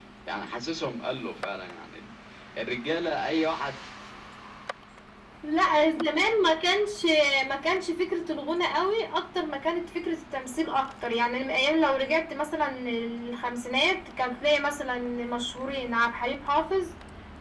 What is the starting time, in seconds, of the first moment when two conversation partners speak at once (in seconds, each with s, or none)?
none